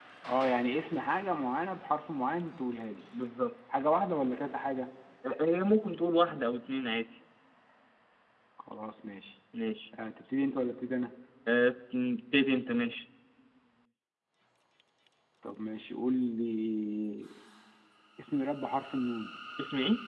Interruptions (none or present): none